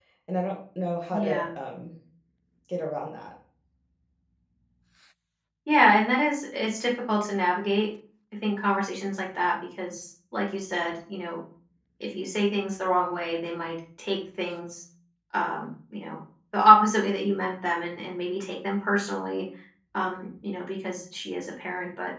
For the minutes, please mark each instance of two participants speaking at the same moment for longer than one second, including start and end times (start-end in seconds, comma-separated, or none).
none